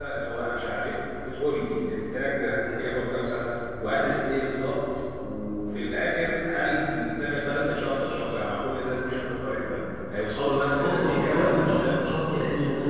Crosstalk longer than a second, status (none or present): present